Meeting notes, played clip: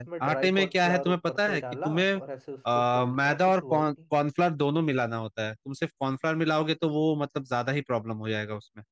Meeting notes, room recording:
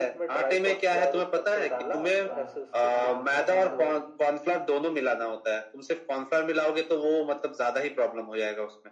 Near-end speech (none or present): present